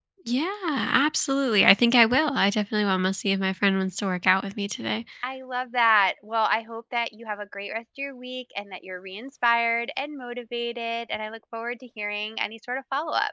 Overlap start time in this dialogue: none

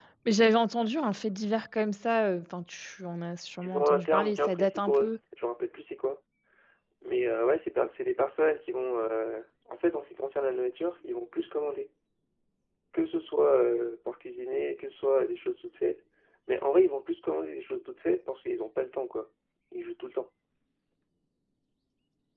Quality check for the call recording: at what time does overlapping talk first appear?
3.6 s

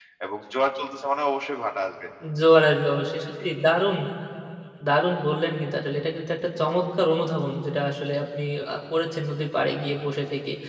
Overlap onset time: none

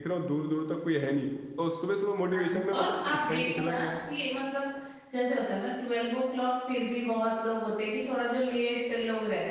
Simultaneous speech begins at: 2.3 s

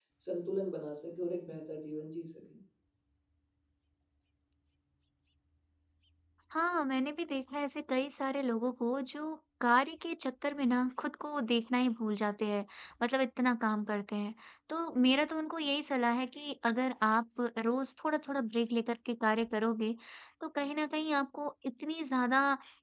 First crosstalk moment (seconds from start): none

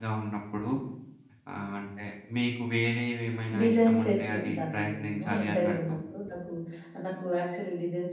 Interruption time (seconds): 3.5 s

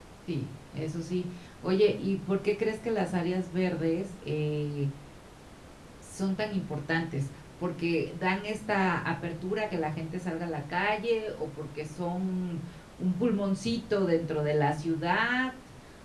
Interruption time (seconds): none

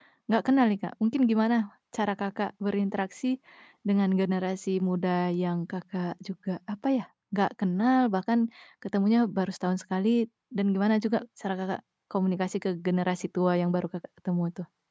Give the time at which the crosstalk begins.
none

